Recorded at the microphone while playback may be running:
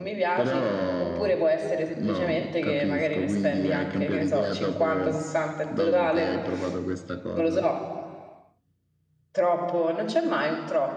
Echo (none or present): present